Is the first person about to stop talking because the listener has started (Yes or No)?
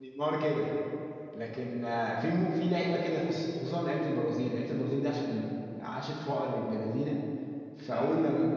No